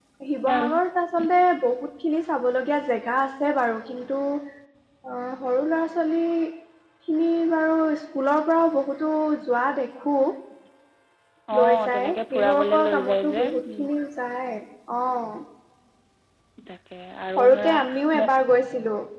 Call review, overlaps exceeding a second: present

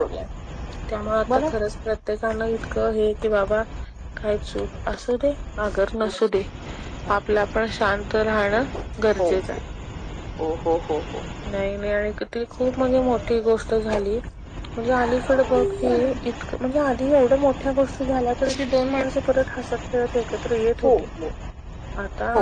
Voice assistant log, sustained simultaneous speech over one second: none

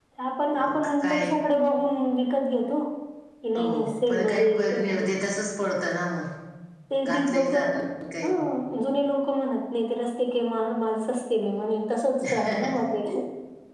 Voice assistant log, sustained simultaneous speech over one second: present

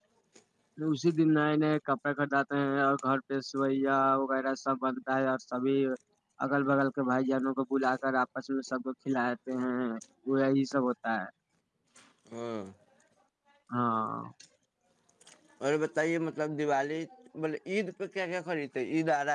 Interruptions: none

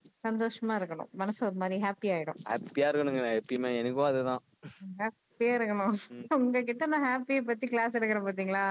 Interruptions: none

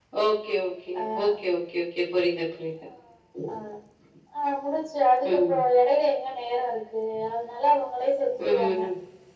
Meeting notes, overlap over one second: none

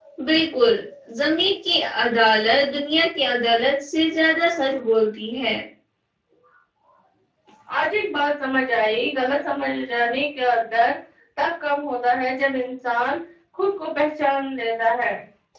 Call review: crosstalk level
none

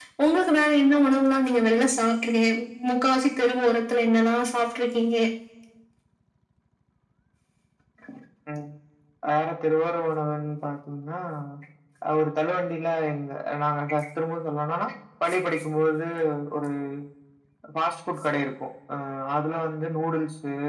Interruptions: none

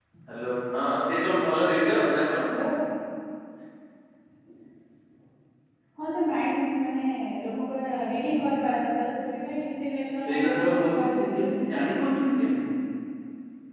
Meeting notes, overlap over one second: present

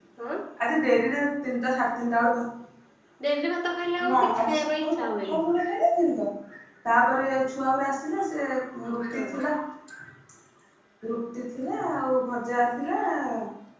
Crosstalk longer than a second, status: present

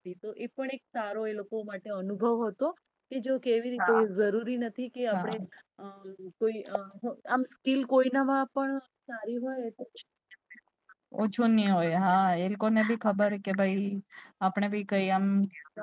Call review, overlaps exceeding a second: none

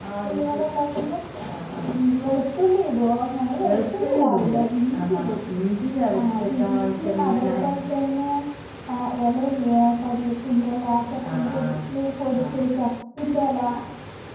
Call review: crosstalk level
present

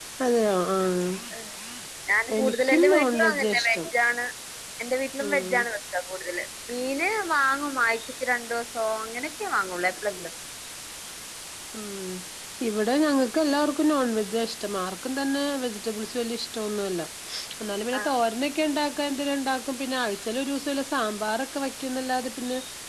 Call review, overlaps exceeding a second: present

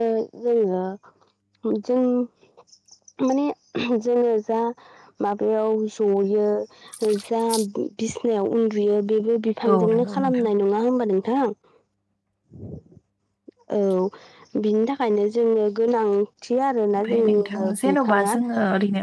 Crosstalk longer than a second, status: present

